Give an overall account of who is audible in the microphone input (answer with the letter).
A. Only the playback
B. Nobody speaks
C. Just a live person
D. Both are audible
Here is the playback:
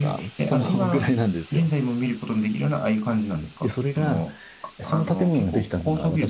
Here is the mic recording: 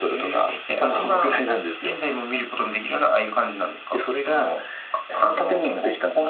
A